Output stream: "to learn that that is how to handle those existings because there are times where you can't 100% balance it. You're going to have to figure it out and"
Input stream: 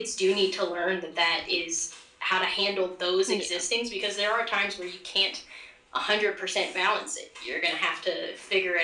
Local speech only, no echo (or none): yeah,